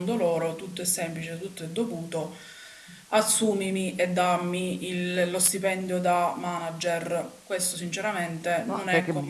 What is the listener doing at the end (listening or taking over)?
taking over